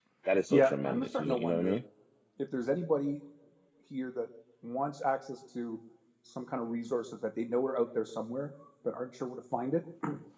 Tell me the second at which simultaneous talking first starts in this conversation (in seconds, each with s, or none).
0.5 s